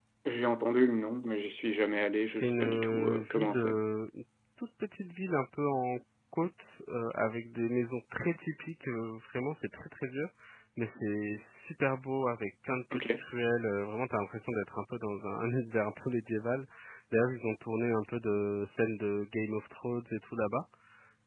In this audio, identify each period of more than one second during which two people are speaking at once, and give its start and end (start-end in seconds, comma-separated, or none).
2.2-3.8